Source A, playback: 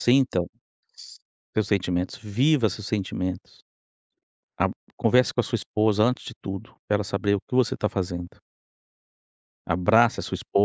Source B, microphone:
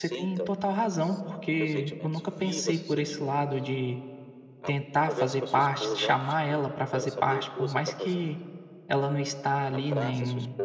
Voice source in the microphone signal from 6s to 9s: both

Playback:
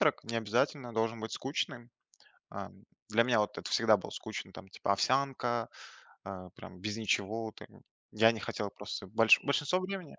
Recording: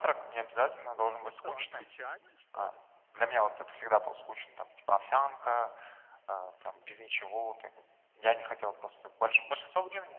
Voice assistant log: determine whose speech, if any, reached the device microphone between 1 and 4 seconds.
both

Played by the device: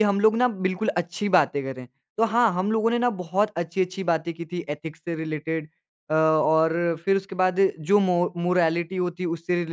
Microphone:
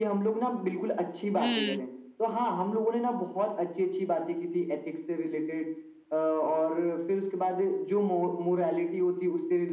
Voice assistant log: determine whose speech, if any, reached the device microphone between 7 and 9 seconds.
echo only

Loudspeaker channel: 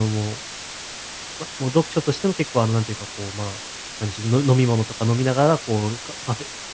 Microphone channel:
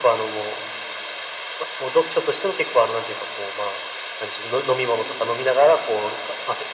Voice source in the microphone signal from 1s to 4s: echo only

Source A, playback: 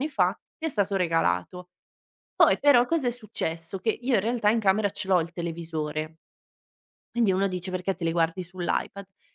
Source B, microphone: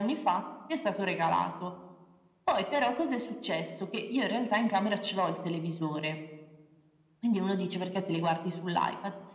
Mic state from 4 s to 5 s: echo only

